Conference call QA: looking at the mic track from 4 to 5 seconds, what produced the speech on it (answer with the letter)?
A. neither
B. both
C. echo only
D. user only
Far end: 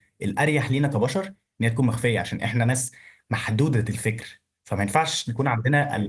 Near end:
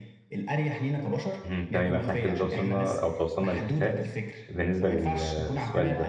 B